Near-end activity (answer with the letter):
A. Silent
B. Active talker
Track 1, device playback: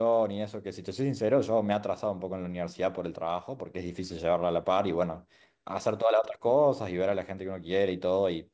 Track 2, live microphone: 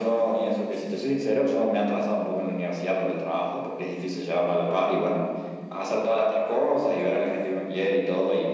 A